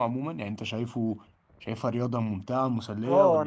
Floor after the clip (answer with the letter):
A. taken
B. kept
A